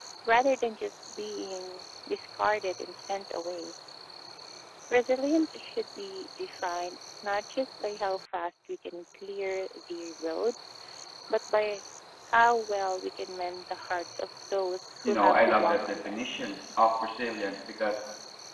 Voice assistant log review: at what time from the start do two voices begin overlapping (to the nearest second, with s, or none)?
15 s